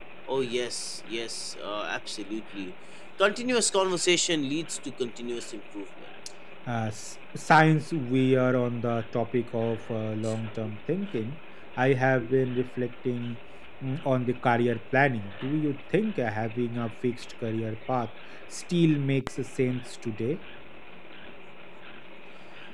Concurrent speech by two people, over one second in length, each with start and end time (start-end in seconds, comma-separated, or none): none